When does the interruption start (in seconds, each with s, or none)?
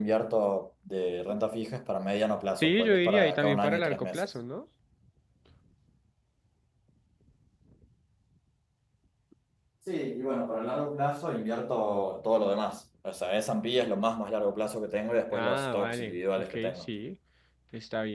2.6 s